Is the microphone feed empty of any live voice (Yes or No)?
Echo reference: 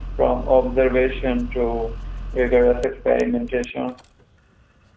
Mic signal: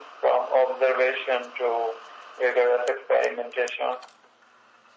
Yes